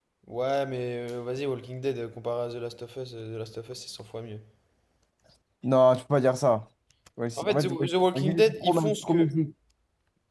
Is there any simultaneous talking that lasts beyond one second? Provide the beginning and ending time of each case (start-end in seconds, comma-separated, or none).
7.4-9.3